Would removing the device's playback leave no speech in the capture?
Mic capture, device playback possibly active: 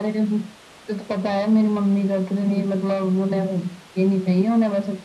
Yes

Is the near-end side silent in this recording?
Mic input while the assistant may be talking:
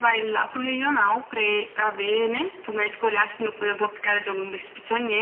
Yes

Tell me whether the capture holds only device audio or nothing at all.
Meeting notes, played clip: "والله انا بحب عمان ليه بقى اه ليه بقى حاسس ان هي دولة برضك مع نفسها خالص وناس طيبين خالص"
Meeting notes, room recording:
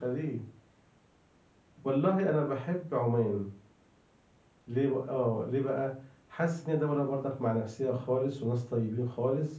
Yes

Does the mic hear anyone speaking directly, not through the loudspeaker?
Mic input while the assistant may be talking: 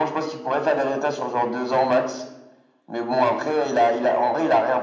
No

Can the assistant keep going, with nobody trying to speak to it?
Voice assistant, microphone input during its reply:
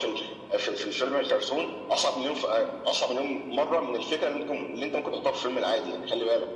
Yes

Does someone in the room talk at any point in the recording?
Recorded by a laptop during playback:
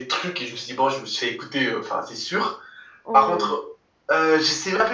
Yes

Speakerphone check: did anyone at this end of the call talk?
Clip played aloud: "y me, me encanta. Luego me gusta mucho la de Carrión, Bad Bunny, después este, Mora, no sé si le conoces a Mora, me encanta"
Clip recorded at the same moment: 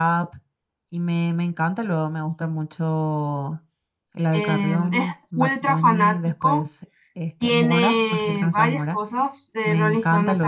Yes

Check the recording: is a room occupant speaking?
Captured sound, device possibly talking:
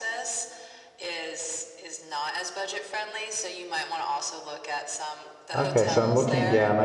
Yes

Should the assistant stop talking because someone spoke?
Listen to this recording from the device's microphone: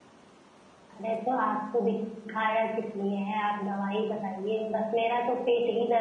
Yes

